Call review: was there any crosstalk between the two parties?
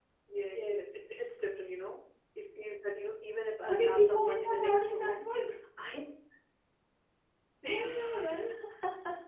Yes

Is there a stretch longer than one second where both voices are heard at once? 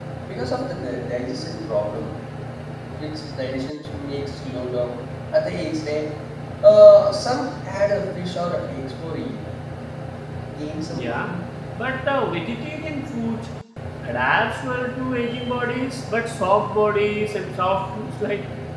No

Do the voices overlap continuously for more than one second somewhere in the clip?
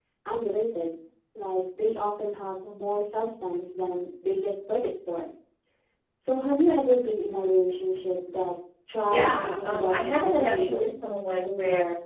Yes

